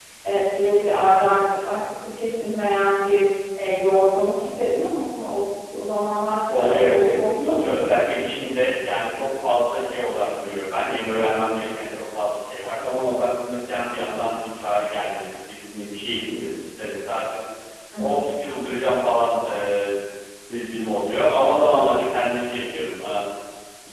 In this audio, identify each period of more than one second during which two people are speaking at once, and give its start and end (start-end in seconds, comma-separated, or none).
6.5-7.8